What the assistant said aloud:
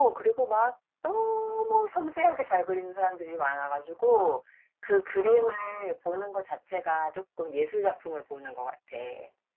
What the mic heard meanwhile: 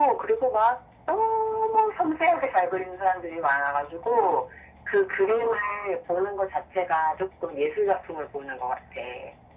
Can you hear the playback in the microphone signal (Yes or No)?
Yes